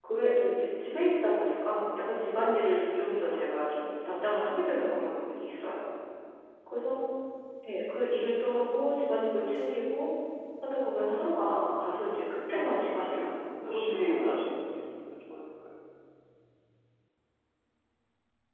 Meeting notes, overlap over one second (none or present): present